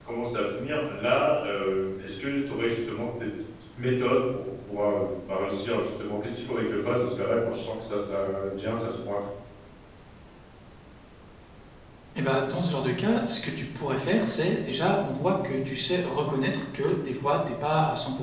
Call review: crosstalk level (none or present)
none